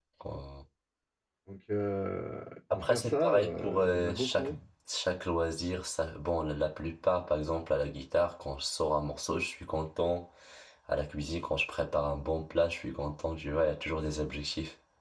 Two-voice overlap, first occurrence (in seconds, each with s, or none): 2.7 s